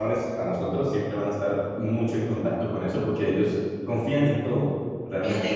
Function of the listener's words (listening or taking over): taking over